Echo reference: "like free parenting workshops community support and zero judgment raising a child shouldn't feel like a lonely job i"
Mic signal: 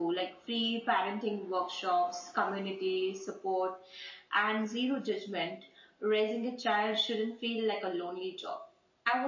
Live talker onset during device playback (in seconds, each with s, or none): none